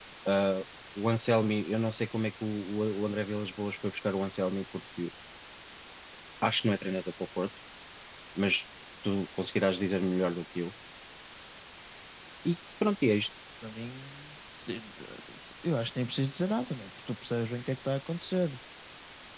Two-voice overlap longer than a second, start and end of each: none

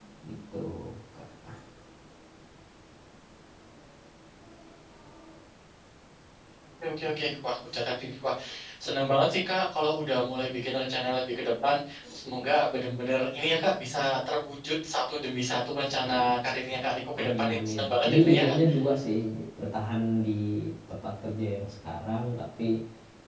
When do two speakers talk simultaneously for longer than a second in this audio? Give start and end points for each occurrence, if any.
17.2-18.6

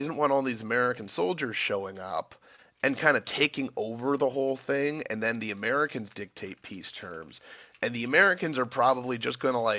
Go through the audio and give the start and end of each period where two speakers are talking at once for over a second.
none

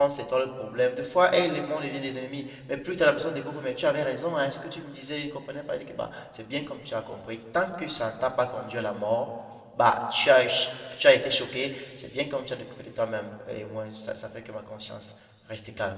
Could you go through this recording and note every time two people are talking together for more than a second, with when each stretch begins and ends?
none

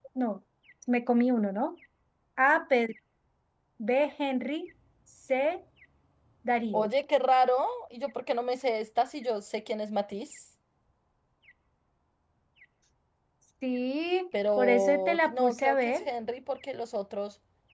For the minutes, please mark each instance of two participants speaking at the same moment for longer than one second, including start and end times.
14.6-16.1

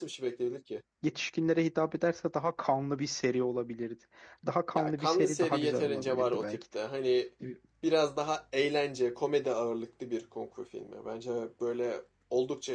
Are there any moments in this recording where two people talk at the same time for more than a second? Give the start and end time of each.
4.7-6.6

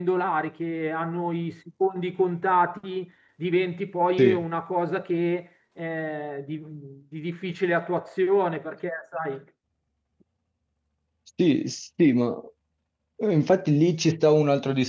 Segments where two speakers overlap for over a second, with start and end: none

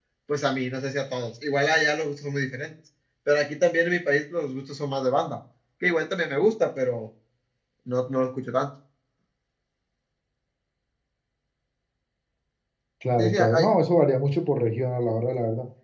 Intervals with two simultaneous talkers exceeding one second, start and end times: none

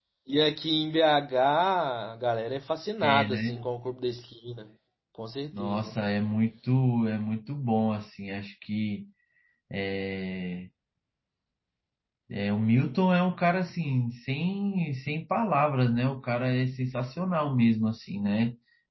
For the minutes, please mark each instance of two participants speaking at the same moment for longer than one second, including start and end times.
none

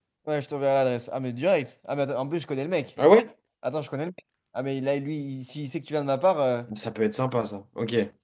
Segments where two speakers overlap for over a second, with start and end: none

